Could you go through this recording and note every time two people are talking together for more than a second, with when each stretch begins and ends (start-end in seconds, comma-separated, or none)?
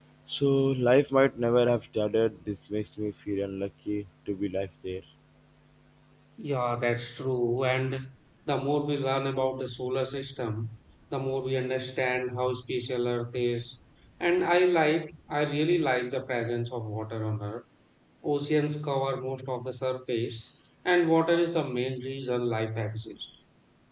none